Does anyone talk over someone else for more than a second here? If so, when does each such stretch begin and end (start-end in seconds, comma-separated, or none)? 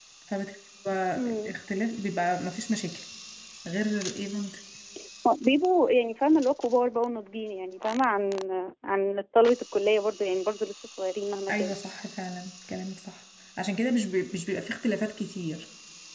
none